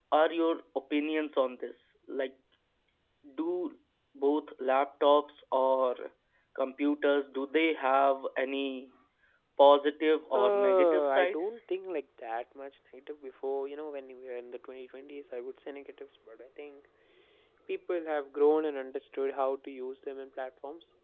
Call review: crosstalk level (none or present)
present